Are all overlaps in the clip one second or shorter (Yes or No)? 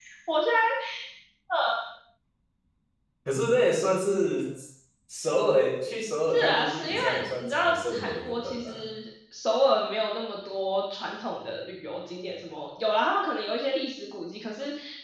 No